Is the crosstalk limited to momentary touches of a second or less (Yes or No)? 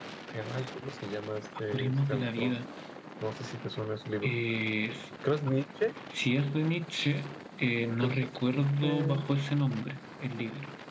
No